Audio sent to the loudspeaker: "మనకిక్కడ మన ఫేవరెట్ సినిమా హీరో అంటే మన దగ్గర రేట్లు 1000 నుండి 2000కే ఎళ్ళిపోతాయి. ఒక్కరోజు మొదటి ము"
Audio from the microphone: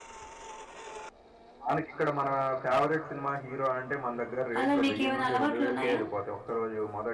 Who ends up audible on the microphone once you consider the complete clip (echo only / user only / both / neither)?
both